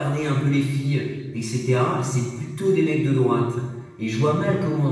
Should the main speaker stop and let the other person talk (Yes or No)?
No